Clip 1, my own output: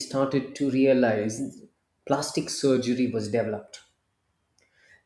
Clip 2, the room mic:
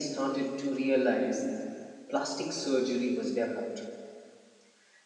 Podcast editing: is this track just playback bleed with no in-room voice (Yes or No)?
Yes